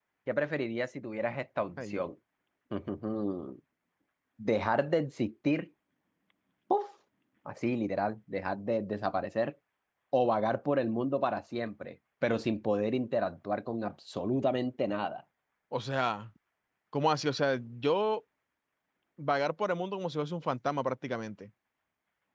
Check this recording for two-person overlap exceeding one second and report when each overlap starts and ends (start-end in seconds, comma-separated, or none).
none